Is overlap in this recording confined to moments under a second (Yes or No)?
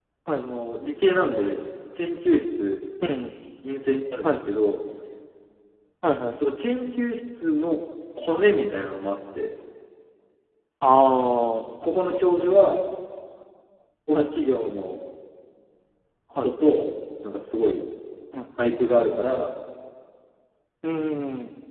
Yes